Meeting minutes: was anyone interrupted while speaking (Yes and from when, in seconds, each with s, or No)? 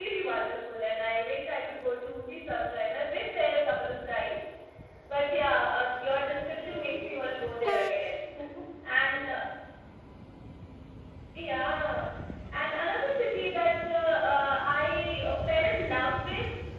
Yes, from 6.6 s